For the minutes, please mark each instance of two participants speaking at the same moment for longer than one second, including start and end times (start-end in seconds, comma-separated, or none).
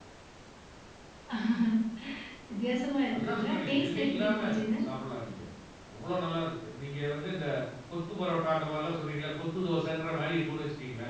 3.1-4.4